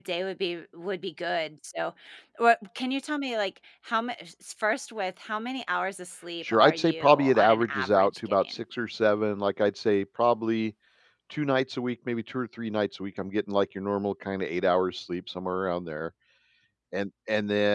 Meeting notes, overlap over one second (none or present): present